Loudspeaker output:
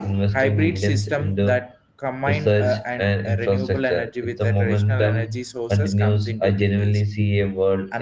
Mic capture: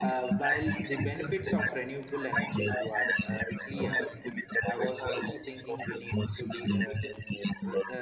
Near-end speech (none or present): present